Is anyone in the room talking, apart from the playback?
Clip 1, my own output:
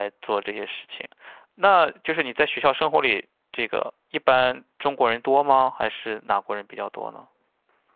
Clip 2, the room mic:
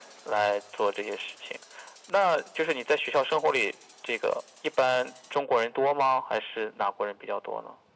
No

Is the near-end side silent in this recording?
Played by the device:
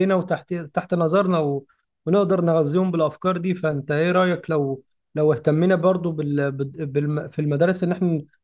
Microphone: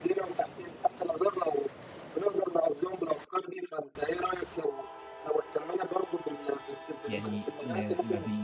No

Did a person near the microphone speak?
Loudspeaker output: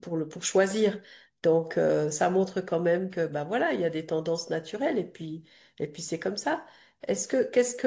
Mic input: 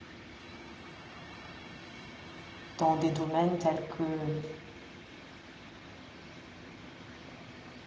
Yes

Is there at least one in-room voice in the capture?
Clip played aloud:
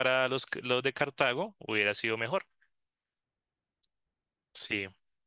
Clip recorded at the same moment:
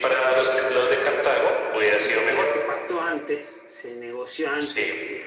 Yes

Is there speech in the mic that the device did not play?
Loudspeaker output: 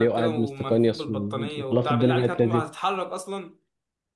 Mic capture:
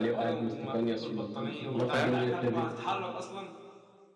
Yes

